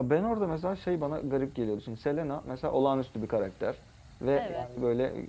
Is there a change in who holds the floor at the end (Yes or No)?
No